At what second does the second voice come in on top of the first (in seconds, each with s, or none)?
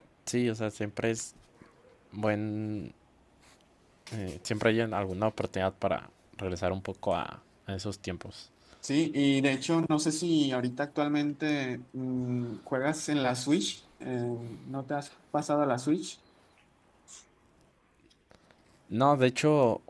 none